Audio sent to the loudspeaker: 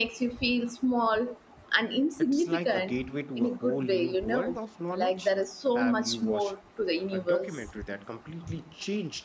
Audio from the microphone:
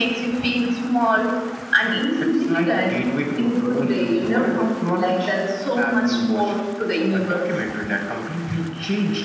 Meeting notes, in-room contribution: none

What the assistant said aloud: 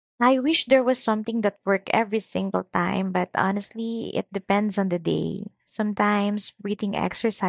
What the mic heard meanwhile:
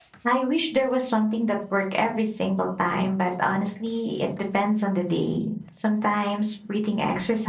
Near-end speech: none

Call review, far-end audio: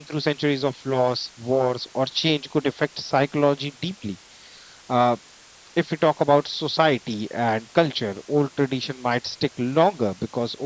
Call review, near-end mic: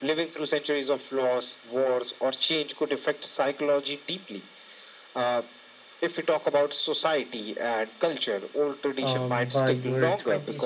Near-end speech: present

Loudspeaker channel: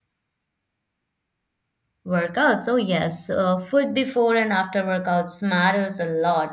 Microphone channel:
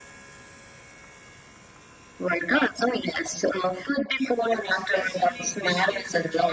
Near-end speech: present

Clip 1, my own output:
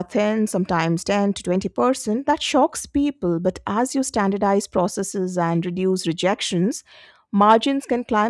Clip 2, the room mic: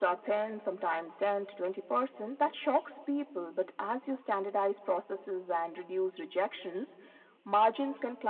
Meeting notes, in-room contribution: none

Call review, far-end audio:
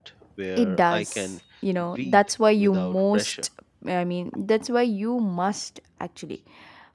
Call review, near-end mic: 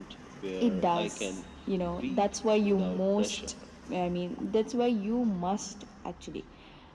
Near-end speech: none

